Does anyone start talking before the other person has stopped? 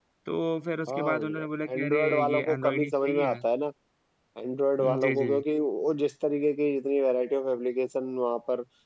Yes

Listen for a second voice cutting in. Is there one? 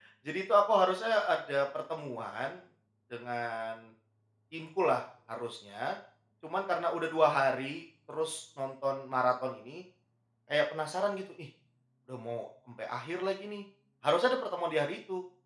No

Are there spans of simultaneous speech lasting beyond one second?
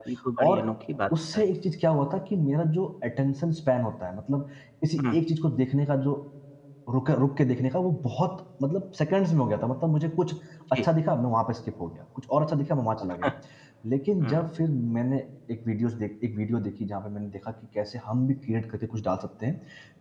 No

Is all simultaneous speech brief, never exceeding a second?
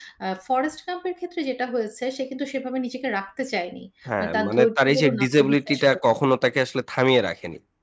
No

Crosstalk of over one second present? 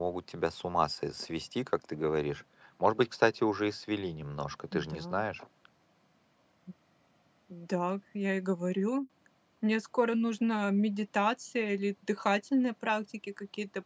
No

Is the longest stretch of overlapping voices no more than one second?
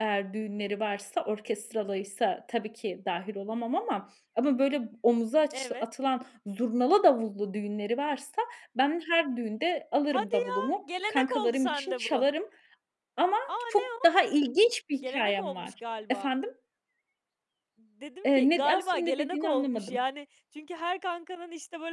No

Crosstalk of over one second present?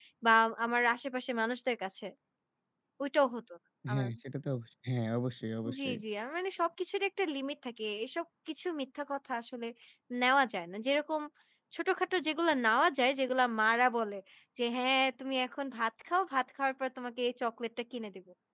No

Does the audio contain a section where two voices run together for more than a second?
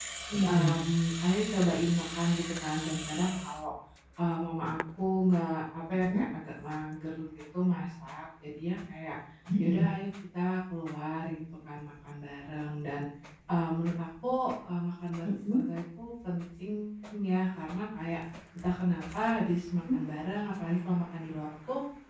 No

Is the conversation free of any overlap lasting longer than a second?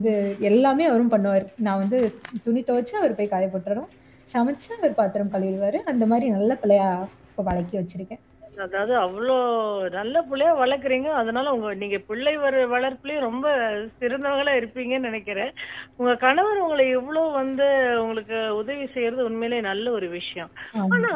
Yes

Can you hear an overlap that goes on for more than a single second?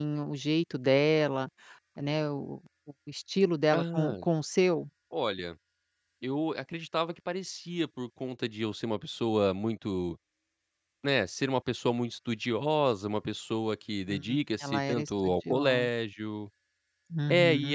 Yes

